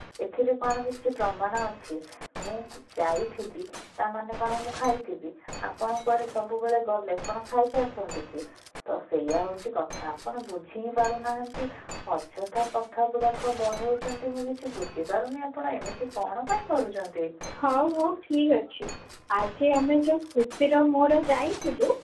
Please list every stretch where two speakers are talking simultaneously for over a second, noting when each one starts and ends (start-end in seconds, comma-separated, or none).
none